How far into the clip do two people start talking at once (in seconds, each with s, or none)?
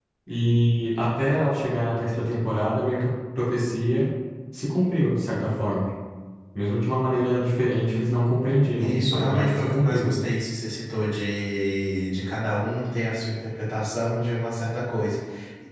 8.8 s